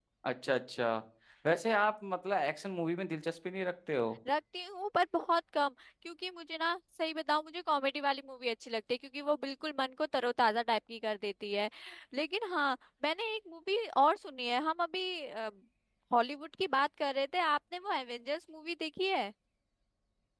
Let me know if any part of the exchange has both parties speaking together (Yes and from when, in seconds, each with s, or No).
No